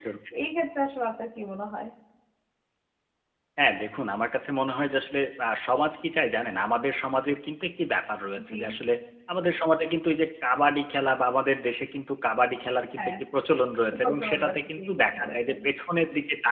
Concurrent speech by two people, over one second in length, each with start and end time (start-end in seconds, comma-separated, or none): 13.9-15.6